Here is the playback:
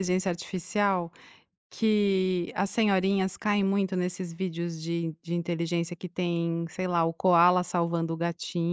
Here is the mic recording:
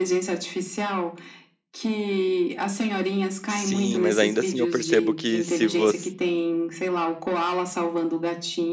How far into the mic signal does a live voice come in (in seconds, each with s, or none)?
3.5 s